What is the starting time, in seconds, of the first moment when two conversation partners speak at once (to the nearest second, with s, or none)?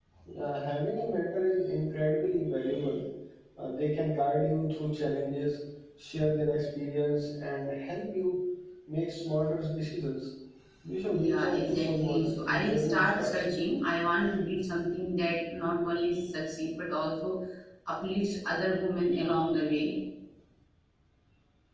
11 s